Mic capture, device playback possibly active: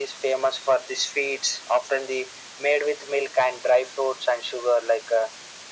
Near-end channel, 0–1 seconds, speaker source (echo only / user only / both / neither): echo only